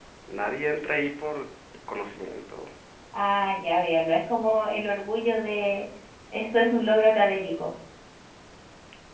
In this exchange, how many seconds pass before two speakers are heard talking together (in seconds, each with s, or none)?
none